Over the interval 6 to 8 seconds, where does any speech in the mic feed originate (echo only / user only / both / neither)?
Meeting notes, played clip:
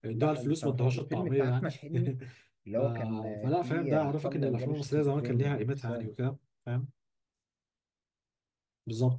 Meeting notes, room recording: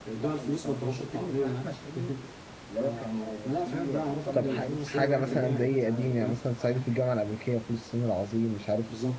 both